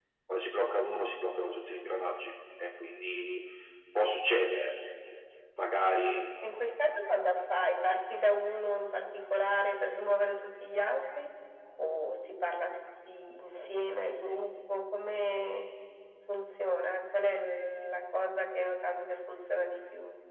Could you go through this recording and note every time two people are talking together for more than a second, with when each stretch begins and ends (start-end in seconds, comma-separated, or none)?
none